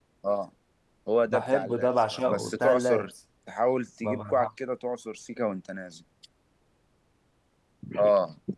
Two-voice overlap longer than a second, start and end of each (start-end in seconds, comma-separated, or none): 1.3-3.1